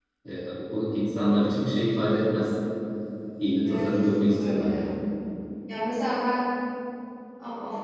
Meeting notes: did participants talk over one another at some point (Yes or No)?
Yes